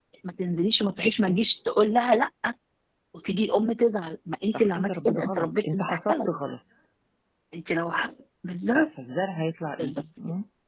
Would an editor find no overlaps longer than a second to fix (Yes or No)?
No